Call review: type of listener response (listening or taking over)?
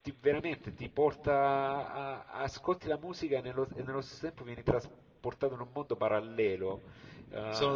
listening